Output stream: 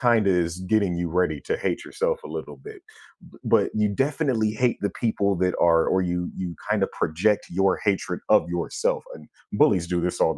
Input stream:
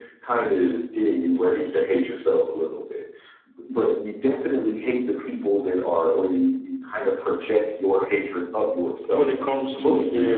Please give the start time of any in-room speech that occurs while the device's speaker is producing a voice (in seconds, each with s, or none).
9.1 s